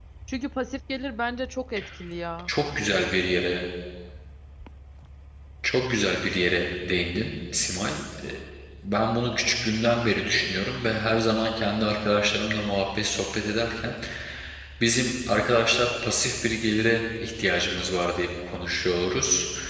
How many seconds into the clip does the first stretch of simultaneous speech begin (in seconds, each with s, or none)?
none